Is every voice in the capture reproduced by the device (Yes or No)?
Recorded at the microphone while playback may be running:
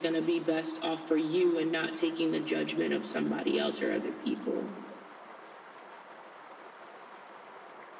Yes